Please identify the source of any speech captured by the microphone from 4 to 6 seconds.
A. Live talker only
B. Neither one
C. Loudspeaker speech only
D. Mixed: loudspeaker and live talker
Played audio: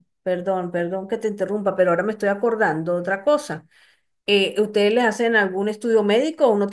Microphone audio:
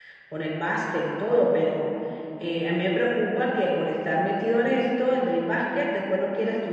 A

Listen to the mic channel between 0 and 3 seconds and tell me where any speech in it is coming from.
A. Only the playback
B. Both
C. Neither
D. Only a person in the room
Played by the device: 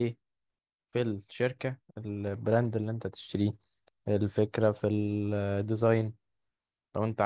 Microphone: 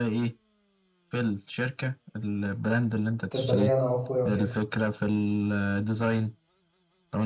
A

